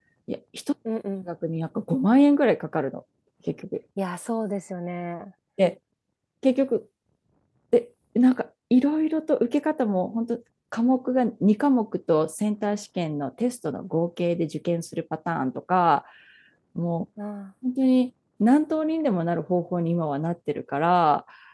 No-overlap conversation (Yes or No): Yes